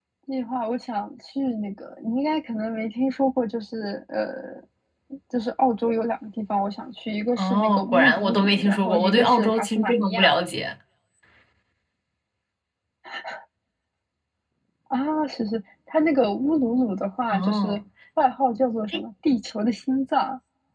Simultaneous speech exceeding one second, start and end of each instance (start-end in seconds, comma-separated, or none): 7.4-10.3